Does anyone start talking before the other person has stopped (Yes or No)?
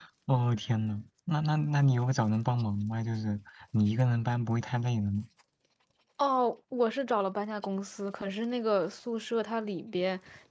No